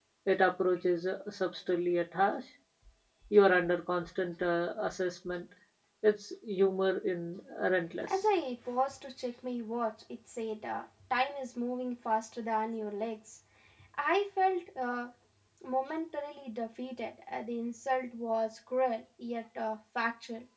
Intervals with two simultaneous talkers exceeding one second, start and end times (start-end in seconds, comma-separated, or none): none